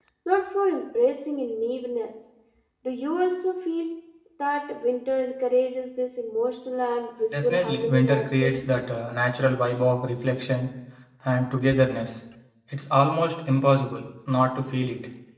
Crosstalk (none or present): present